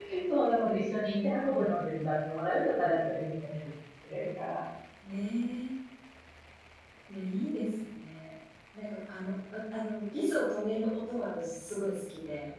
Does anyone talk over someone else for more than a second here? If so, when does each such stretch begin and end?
none

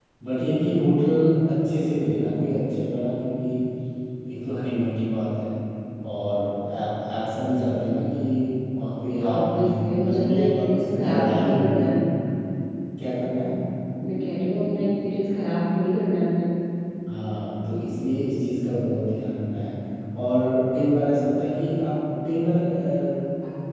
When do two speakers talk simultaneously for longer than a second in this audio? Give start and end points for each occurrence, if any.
9.2-11.8

